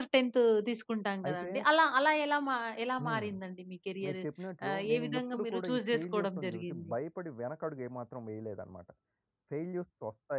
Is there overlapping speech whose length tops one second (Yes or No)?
Yes